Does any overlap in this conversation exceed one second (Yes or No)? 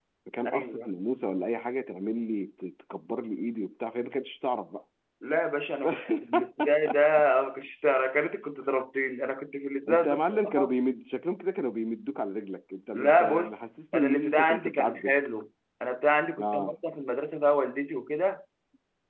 Yes